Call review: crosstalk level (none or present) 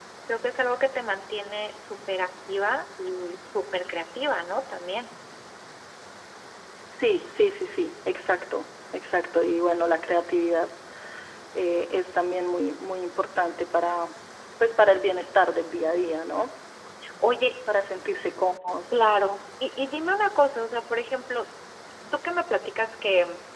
none